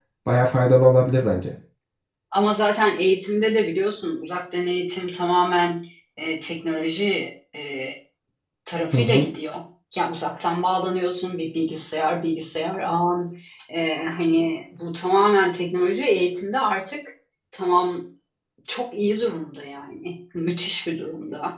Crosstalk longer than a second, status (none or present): none